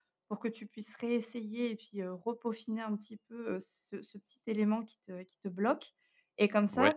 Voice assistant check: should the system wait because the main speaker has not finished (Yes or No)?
Yes